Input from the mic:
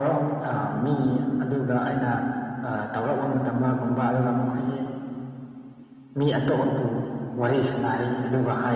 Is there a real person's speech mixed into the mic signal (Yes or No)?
No